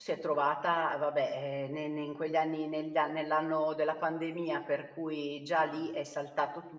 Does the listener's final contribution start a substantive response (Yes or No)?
No